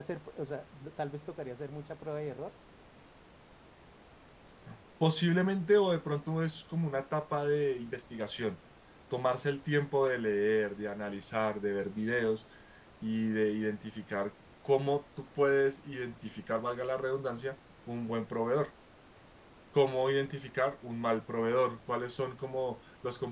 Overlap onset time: none

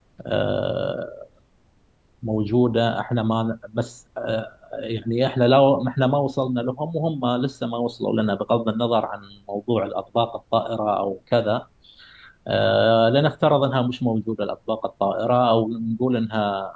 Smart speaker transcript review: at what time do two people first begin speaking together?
none

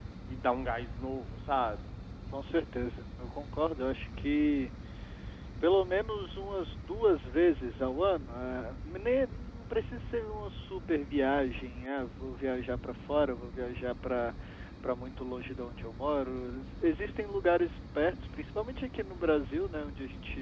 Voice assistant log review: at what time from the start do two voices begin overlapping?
none

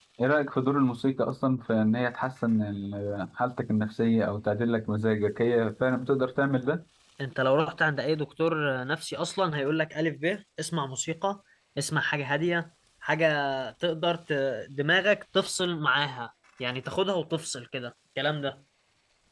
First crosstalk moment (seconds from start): none

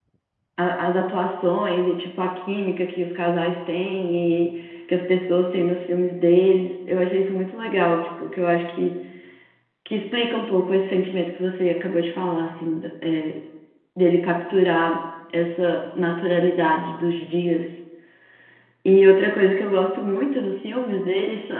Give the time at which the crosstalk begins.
none

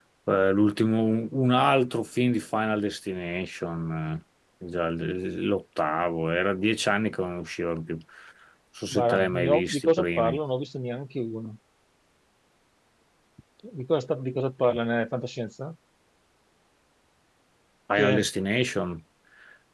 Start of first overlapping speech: 9 s

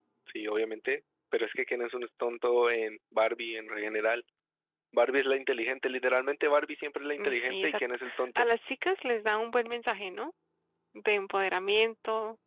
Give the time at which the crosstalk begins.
7 s

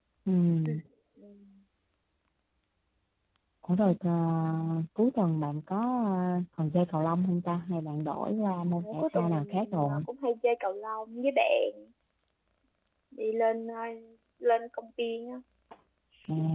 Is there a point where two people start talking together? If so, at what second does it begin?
9 s

